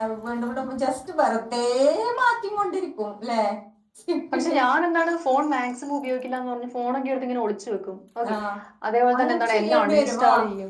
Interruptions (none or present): present